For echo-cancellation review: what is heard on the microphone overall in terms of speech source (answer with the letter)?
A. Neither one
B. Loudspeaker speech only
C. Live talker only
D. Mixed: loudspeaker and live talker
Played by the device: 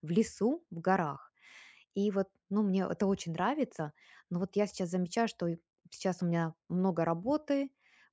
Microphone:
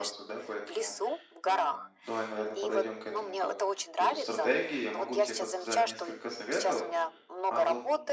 D